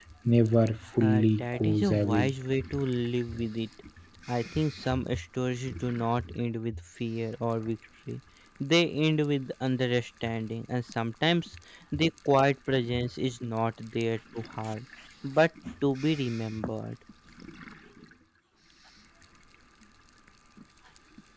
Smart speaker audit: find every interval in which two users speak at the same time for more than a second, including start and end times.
1.0-2.3

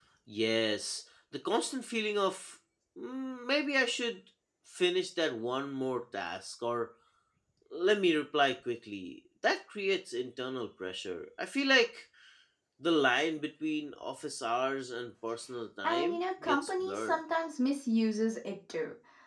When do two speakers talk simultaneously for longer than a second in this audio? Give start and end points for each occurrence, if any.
15.8-17.2

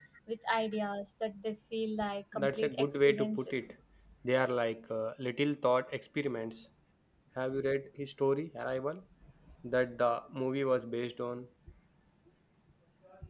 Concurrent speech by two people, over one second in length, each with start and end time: 2.3-3.7

